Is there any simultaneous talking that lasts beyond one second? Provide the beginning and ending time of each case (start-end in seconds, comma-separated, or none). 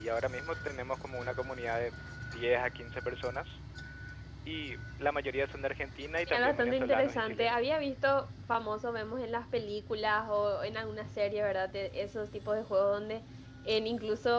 6.3-7.8